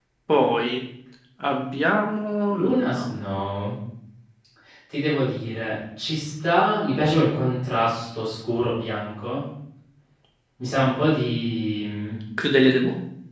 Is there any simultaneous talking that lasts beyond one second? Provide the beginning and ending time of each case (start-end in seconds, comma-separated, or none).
none